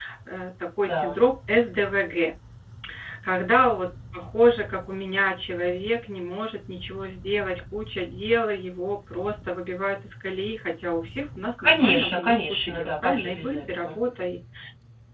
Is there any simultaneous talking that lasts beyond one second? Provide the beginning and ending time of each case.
11.6-14.0

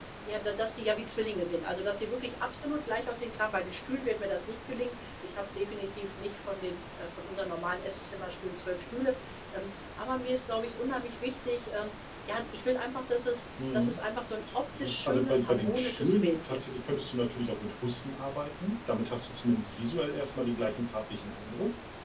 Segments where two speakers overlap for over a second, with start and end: 14.8-16.6

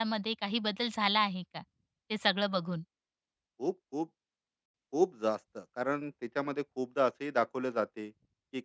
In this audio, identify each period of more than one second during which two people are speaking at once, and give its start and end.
none

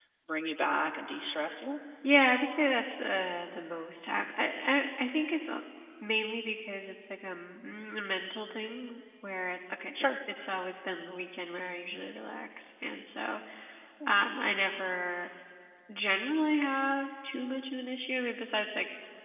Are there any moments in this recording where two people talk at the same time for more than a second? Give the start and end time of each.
none

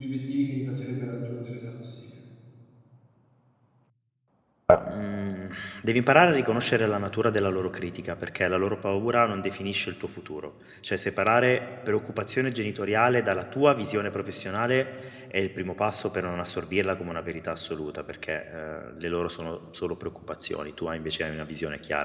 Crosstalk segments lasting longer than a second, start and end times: none

